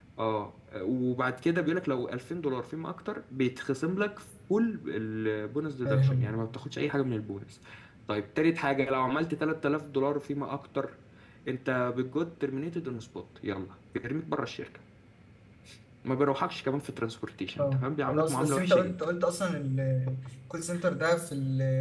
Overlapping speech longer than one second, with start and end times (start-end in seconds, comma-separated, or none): 17.6-18.9